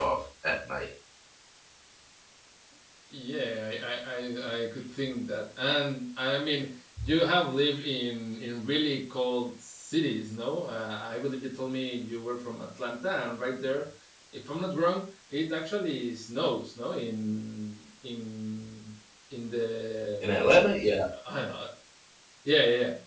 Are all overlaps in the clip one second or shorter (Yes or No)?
Yes